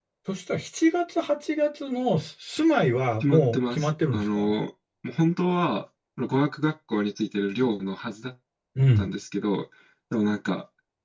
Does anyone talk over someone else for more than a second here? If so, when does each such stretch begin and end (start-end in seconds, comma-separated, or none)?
3.2-4.5